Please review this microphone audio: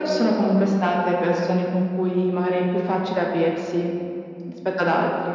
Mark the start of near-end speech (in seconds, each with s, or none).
none